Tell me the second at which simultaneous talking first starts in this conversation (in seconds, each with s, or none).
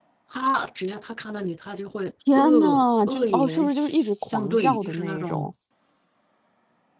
2.3 s